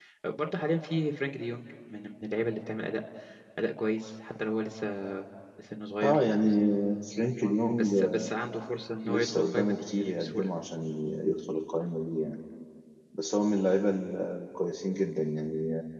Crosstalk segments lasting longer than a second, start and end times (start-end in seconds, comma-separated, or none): 9.0-10.5